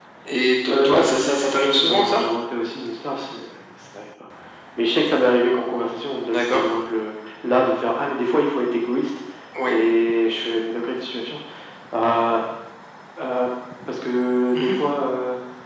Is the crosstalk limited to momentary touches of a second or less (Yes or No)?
No